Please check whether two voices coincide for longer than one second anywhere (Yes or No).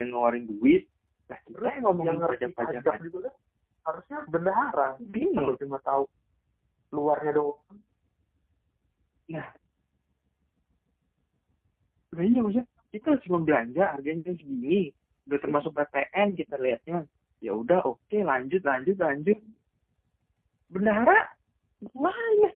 Yes